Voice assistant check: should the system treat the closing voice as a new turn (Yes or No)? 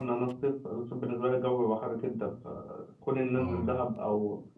No